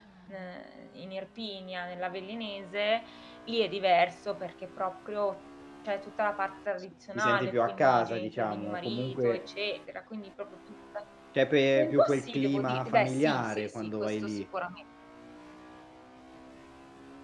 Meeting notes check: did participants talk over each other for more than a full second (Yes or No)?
Yes